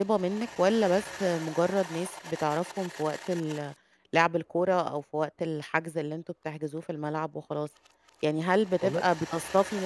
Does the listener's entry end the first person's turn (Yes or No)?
No